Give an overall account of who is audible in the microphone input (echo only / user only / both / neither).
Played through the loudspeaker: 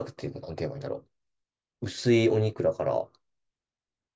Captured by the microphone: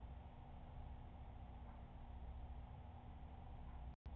neither